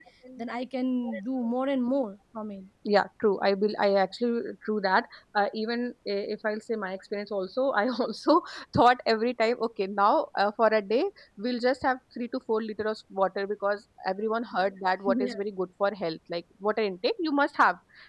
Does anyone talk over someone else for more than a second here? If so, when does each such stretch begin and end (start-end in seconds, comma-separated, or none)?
none